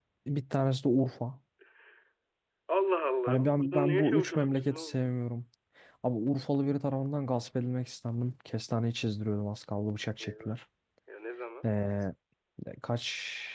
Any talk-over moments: Yes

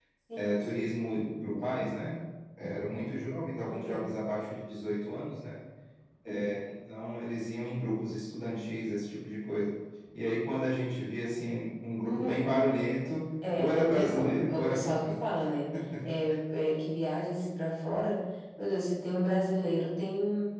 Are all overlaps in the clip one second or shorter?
No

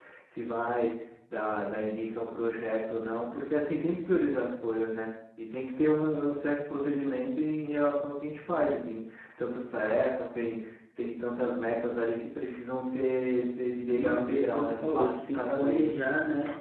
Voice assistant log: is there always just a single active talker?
No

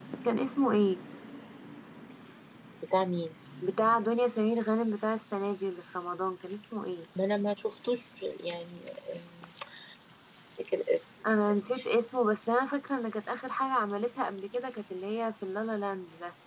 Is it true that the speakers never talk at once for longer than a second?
Yes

